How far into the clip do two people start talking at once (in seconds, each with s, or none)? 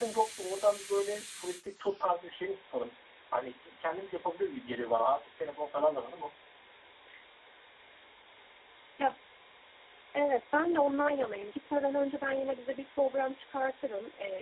none